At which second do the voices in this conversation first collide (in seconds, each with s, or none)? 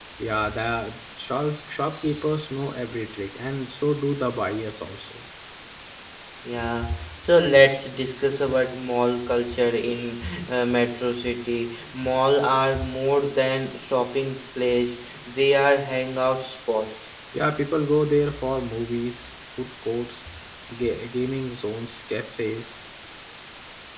none